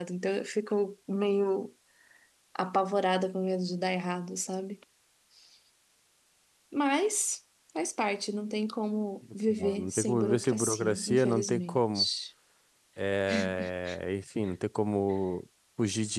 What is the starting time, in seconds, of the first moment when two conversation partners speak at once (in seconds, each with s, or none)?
9.8 s